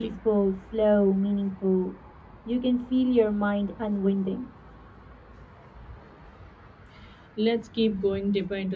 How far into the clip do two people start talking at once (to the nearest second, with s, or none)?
none